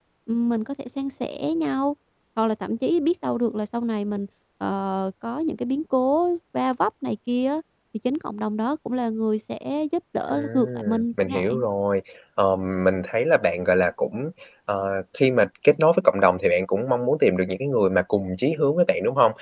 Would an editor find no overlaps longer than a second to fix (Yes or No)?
No